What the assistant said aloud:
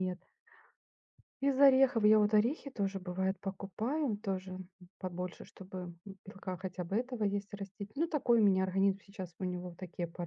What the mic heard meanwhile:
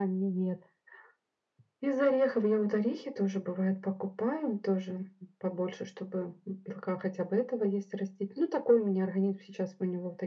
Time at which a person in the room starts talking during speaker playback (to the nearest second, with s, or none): none